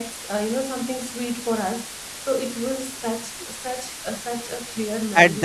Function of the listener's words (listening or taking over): taking over